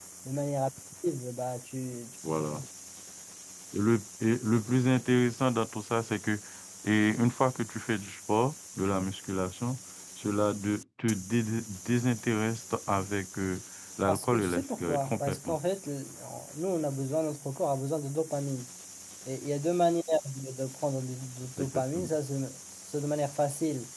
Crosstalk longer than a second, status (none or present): present